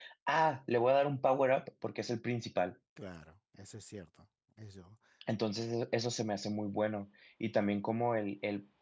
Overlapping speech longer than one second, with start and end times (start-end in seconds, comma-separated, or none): none